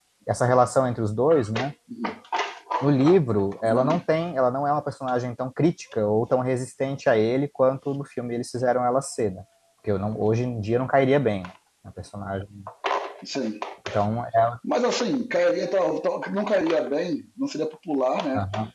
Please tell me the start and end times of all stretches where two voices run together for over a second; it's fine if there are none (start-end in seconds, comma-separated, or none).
none